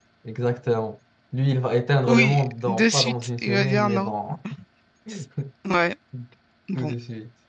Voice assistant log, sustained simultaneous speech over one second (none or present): present